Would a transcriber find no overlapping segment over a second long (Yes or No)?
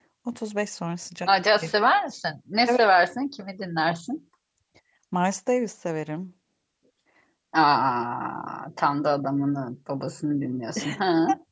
Yes